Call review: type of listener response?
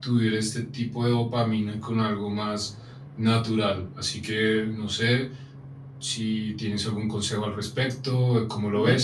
taking over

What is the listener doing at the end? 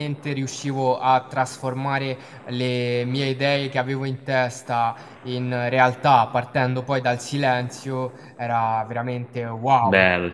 taking over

